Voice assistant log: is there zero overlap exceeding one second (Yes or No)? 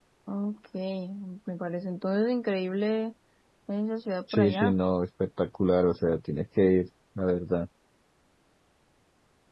Yes